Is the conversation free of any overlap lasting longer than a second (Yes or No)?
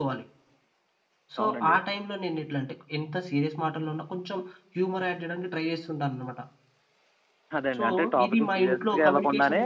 No